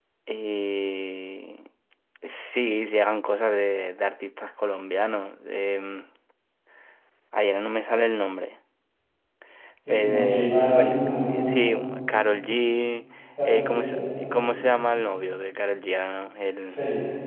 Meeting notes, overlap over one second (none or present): present